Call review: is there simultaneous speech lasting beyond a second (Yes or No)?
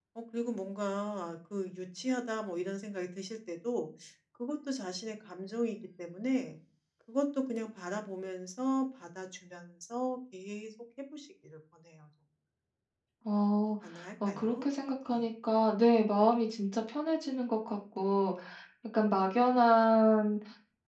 No